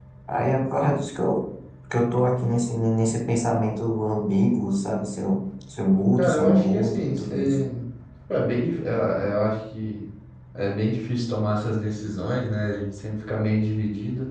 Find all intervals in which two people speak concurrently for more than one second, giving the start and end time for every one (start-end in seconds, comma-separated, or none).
6.2-7.6